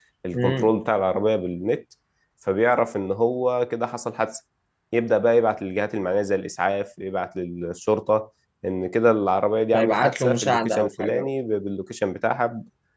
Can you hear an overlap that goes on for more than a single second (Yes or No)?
Yes